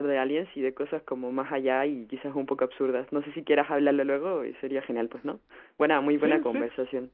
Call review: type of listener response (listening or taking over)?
taking over